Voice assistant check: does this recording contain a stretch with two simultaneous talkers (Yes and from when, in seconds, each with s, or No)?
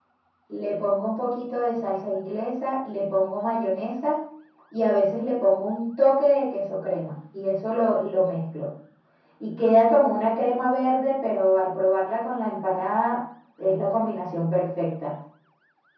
No